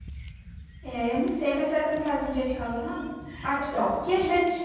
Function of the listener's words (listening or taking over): listening